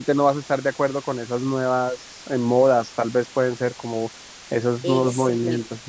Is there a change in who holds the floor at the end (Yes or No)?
Yes